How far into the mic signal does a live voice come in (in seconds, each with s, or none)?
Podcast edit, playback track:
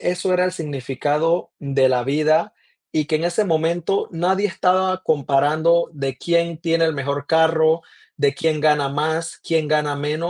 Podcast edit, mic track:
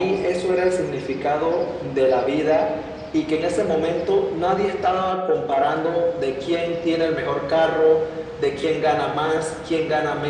none